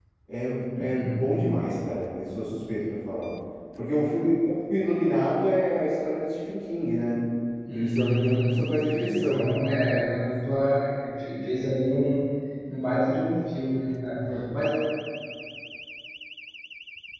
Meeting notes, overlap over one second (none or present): present